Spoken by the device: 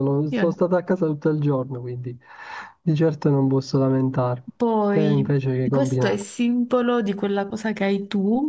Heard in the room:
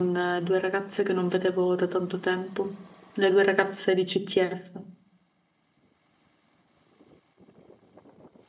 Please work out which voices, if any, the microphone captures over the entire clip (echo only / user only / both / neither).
user only